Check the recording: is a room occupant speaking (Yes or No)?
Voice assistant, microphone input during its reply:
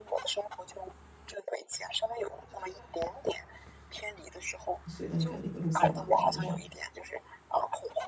Yes